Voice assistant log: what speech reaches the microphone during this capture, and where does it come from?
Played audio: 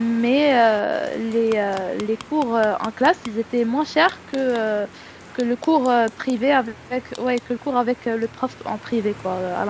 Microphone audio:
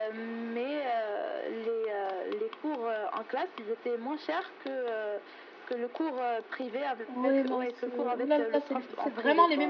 both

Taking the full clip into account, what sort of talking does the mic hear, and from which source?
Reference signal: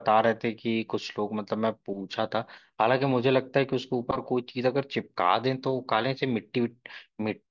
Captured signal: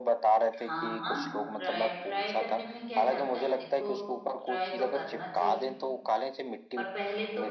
both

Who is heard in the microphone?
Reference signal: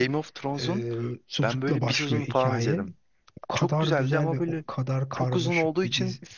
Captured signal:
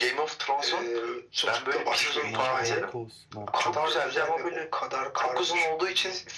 both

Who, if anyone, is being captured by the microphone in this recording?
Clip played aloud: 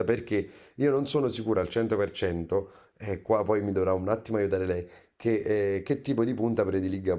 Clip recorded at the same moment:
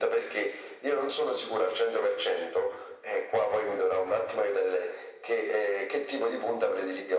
echo only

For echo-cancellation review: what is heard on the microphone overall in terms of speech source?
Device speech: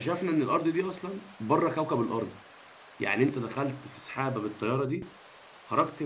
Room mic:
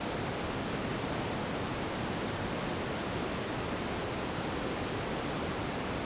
neither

